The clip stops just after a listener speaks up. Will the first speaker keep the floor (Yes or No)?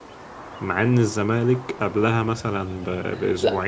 No